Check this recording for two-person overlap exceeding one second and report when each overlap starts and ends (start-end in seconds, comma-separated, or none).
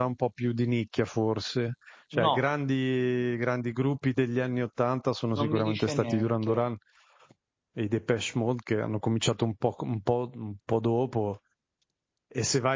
5.4-6.6